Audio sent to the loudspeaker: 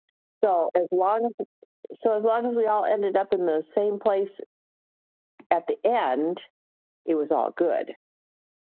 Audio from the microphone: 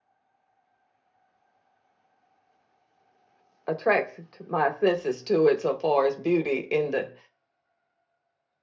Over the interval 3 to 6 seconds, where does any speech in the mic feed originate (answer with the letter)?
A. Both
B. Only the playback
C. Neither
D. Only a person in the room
D